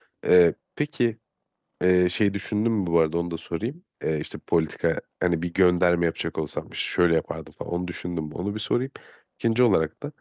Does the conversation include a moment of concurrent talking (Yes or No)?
No